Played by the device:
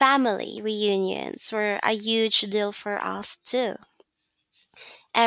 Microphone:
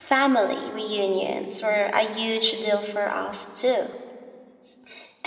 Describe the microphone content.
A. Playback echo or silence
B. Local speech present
A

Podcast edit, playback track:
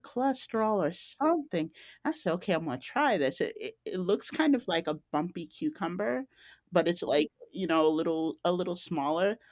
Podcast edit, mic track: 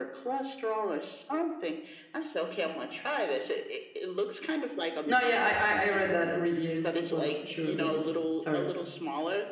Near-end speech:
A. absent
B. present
B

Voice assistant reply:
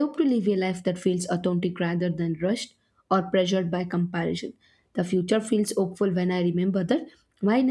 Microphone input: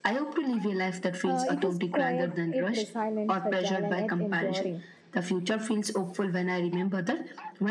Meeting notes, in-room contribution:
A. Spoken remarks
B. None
A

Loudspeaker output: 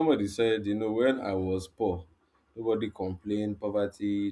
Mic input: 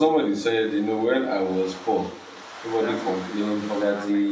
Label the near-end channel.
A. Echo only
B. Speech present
B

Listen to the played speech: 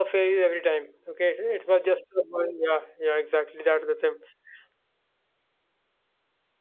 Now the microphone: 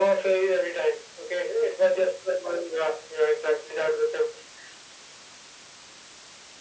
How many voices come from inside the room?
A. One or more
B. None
B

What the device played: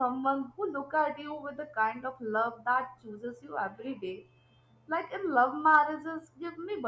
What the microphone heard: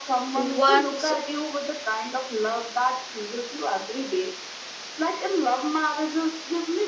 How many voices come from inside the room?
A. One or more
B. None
A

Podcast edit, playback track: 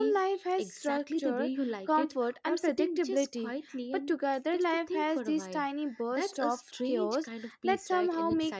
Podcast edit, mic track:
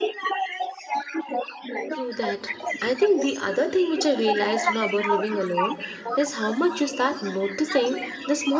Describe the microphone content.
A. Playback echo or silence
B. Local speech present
B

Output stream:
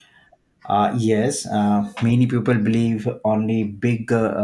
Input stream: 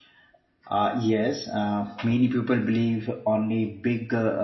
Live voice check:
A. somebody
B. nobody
B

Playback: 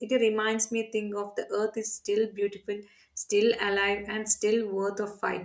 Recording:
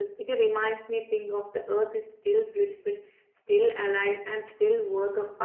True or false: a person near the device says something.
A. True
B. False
B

